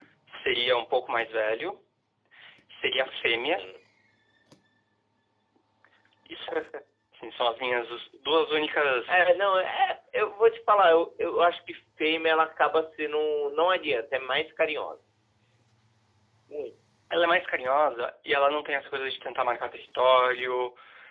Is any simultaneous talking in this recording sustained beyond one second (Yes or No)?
No